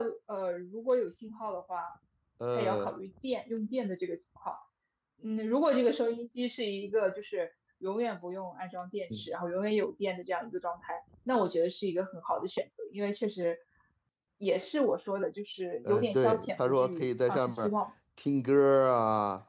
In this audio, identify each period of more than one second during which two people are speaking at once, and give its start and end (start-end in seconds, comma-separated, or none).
15.8-17.7